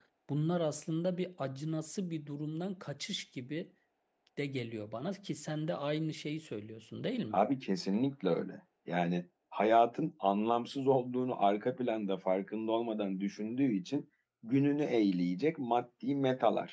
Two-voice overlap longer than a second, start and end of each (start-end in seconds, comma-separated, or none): none